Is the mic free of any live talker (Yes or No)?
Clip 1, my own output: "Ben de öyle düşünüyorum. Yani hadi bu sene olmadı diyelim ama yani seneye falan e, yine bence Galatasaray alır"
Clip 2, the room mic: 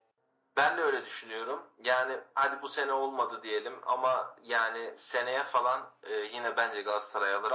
Yes